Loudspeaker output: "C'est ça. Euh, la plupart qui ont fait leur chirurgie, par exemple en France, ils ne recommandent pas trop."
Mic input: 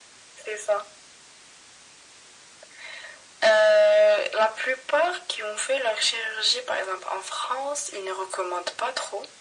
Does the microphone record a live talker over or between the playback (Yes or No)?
No